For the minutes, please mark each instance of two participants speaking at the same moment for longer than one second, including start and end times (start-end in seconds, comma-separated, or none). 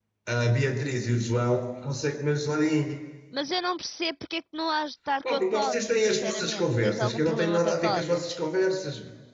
5.2-8.3